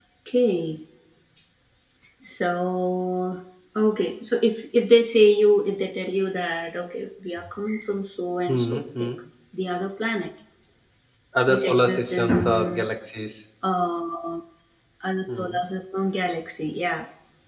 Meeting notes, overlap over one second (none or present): present